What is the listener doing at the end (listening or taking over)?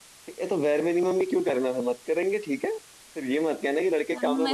taking over